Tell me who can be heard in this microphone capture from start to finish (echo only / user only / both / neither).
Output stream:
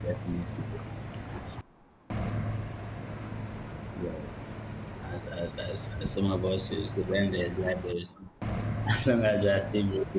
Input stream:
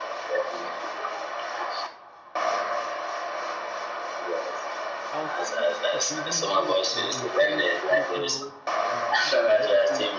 both